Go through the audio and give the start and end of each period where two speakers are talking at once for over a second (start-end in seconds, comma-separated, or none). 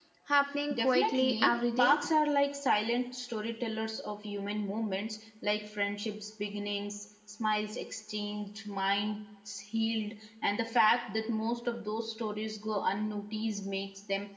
0.7-2.0